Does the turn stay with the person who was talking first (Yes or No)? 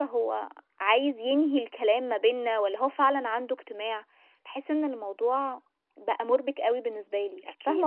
No